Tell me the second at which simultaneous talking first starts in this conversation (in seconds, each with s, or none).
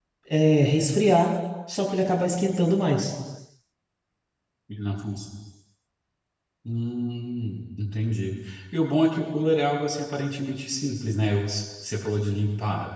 none